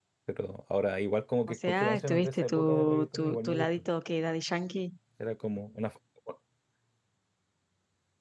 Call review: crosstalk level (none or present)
present